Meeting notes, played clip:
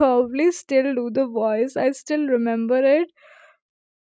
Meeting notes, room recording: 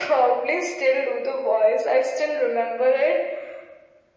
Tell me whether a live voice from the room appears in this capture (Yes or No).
No